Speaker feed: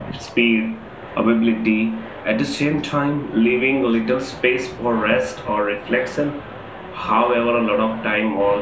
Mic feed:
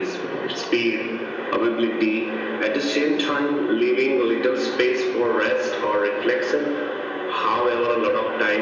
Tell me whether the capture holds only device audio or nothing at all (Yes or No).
Yes